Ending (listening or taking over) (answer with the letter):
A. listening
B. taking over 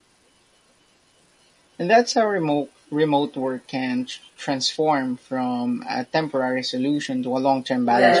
B